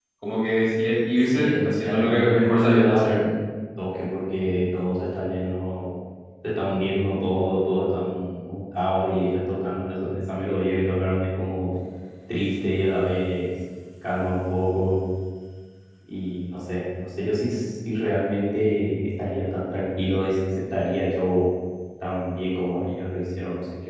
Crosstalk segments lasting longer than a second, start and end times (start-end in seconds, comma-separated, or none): 1.0-3.2